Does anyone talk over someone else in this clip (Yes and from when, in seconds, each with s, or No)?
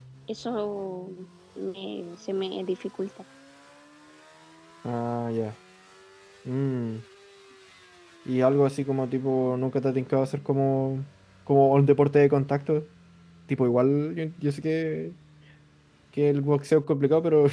No